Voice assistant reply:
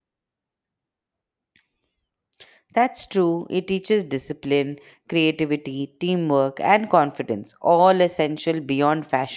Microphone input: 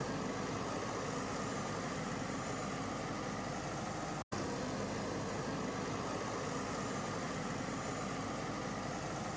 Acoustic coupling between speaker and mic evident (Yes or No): No